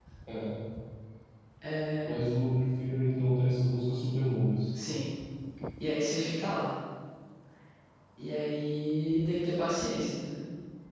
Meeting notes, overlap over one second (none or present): none